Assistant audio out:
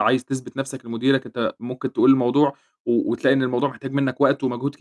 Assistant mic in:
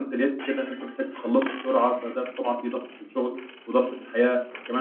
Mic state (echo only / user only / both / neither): user only